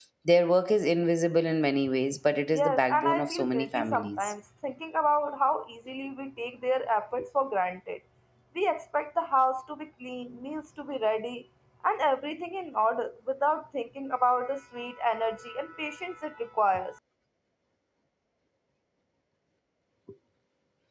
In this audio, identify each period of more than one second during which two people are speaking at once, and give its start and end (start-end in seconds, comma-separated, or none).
2.5-4.3